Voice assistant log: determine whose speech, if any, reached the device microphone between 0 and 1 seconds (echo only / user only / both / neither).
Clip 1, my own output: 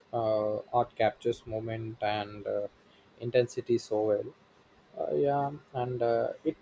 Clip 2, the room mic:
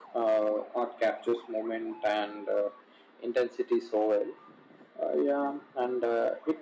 echo only